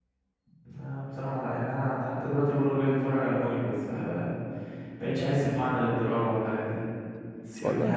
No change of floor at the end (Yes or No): Yes